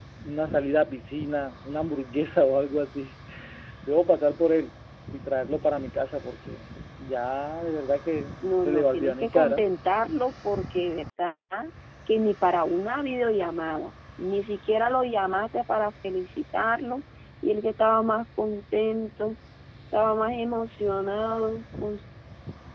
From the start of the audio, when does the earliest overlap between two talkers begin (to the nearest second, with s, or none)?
8 s